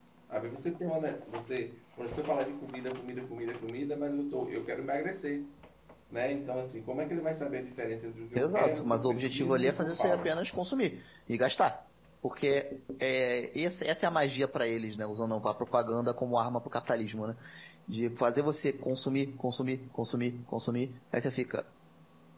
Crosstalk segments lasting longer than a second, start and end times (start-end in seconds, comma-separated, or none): 8.3-10.3